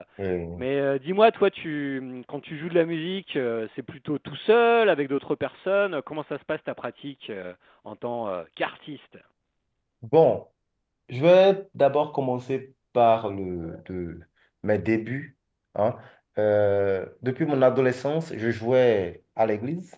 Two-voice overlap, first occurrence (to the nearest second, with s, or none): none